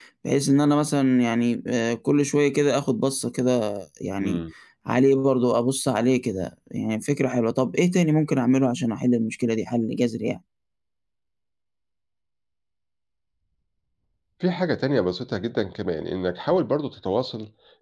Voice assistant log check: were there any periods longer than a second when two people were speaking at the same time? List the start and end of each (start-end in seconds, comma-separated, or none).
none